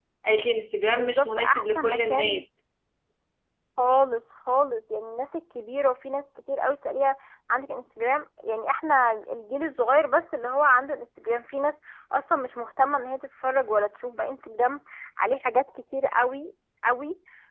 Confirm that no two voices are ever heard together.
No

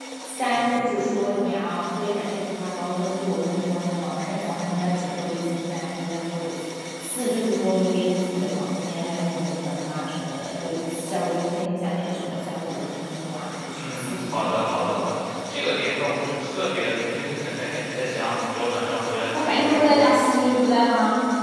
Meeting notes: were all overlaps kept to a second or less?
No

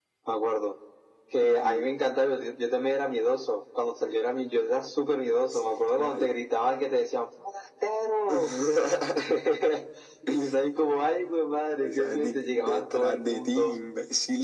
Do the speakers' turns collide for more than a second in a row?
Yes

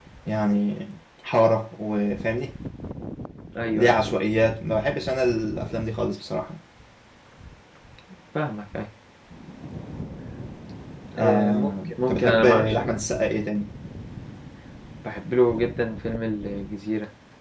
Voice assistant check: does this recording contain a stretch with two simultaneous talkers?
Yes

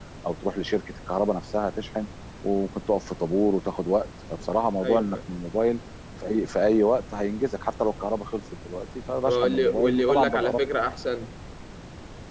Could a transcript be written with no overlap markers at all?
No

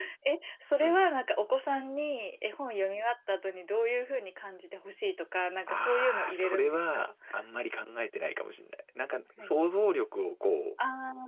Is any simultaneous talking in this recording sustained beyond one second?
Yes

